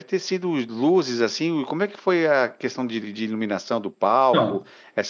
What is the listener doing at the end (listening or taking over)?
listening